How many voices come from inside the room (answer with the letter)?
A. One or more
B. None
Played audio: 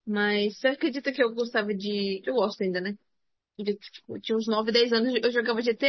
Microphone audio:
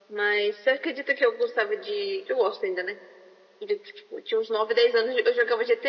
B